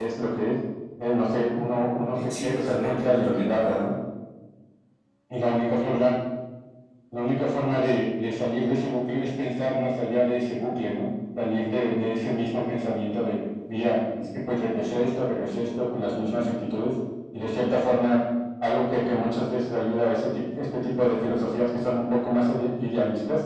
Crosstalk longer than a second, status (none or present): present